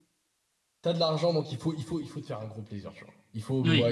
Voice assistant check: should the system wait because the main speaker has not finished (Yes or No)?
Yes